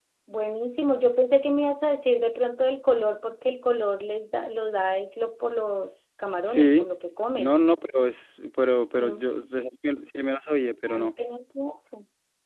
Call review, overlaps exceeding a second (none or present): none